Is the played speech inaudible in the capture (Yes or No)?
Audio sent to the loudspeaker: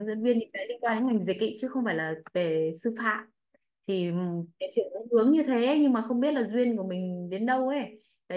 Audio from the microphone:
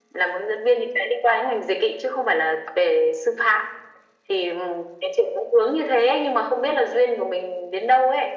No